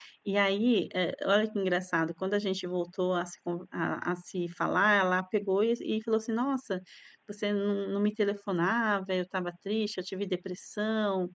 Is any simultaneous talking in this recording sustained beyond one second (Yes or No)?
No